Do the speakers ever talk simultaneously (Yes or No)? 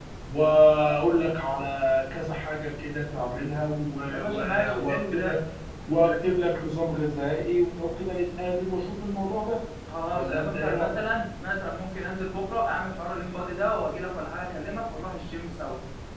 Yes